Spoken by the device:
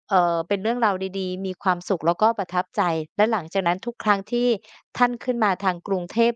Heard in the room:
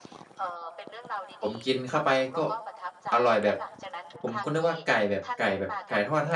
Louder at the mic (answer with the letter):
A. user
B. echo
A